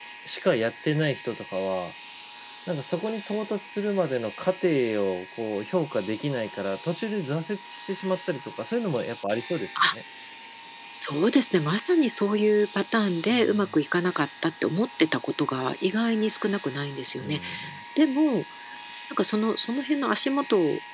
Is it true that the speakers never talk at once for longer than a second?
Yes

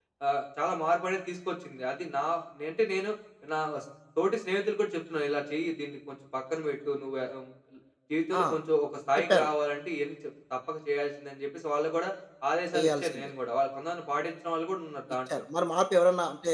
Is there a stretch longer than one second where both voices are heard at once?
No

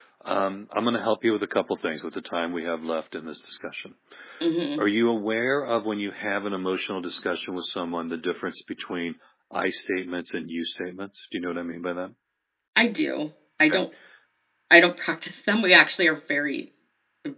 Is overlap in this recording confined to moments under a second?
Yes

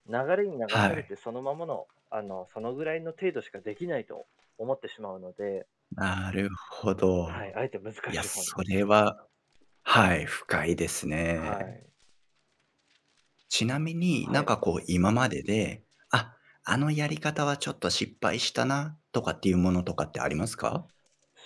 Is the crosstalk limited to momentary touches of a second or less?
Yes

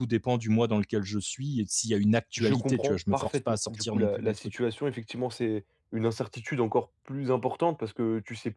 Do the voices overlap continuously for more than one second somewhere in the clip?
Yes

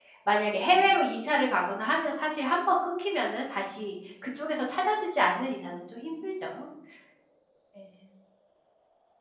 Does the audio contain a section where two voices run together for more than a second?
No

